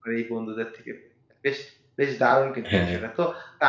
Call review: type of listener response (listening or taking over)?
listening